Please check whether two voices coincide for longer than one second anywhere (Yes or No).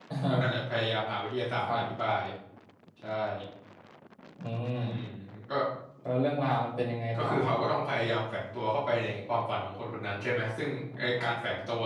No